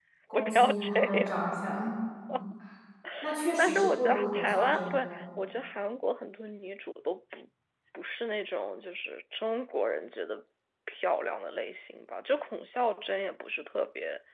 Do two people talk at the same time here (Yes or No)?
Yes